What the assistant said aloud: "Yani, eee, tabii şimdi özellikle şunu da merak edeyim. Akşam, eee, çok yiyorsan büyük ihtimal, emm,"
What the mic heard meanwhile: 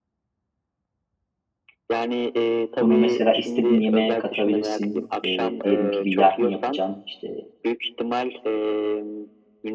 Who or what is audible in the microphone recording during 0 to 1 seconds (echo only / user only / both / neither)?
neither